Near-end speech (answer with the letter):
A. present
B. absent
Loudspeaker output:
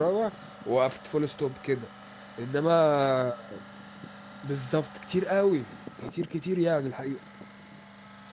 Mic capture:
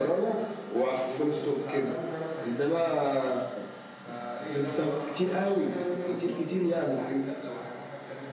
A